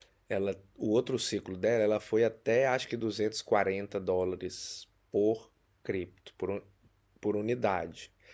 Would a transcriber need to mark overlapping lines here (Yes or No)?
No